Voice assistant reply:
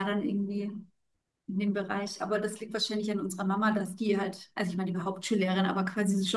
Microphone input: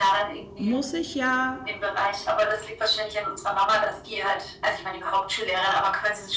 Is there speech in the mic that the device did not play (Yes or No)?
Yes